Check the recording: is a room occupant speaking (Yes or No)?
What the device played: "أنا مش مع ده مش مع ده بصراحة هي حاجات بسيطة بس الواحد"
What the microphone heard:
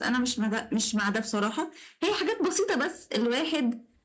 No